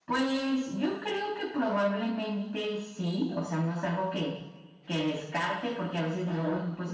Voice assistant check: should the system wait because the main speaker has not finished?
Yes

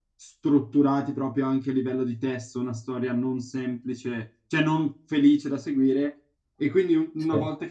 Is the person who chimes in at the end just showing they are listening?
Yes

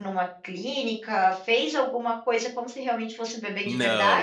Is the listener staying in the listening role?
No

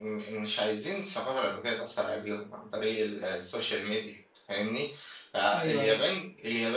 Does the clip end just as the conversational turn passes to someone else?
No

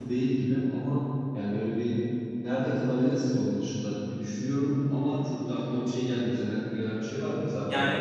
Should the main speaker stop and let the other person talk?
Yes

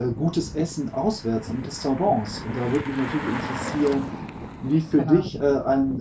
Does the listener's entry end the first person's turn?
No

